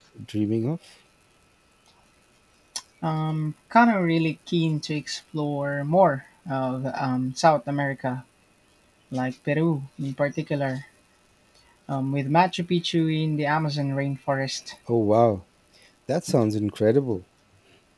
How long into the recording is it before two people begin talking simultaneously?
none

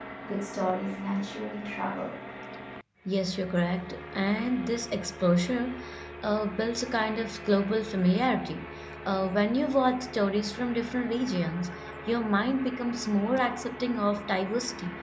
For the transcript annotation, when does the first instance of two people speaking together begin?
none

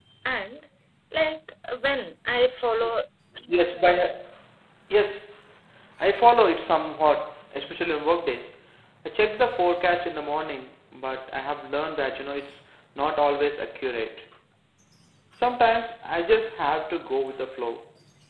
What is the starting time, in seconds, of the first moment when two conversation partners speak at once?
none

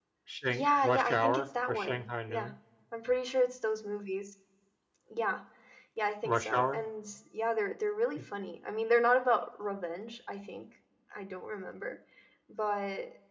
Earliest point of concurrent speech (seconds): 0.5 s

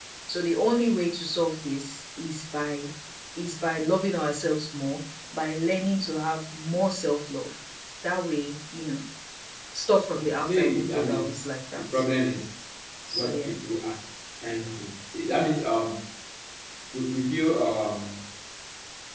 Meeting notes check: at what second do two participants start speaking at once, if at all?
10.2 s

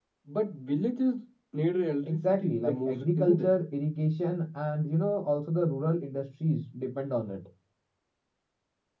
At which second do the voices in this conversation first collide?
2.0 s

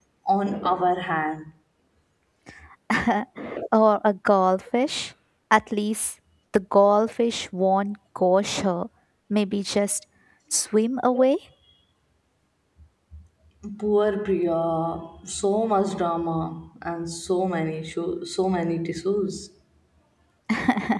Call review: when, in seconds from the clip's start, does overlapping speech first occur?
none

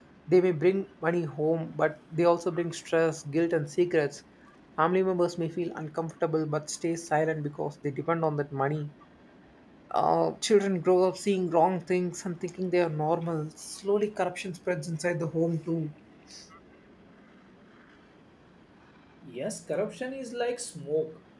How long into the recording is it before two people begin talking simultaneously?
none

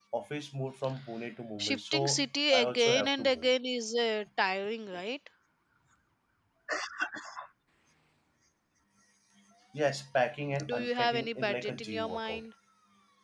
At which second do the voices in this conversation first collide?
1.6 s

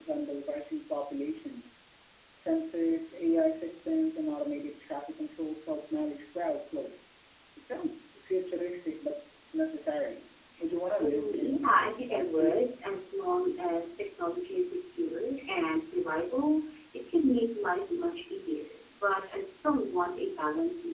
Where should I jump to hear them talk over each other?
11.0 s

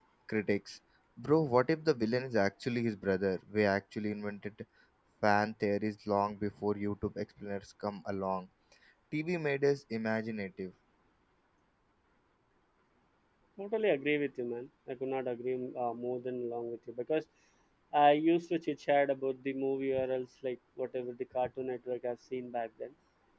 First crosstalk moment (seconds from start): none

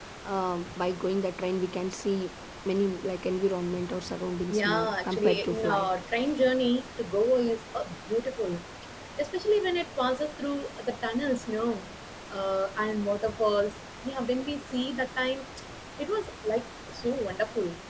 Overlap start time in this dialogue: 4.5 s

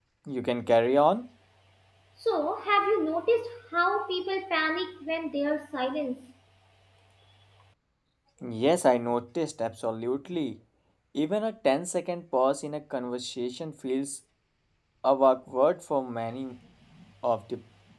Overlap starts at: none

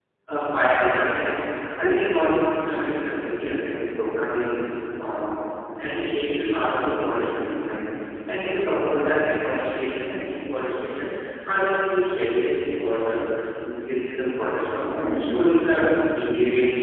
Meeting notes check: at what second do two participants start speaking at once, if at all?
none

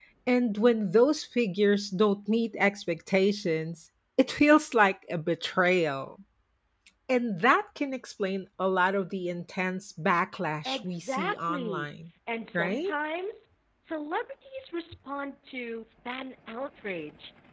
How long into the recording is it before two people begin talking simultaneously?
10.7 s

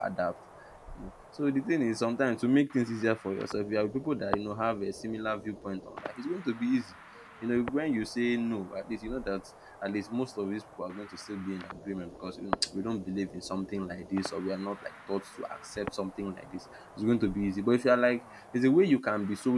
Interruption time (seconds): none

